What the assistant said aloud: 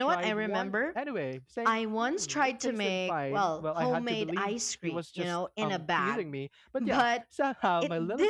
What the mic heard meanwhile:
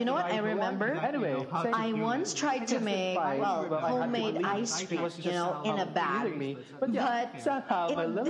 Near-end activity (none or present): present